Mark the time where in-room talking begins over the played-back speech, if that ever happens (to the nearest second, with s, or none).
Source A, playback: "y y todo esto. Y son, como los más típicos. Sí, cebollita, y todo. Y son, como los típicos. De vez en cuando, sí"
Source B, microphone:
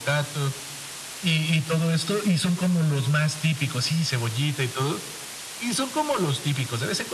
none